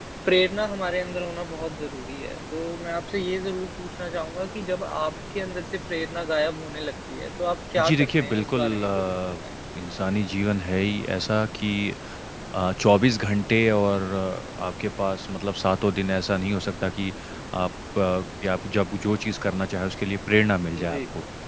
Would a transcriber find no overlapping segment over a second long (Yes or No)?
No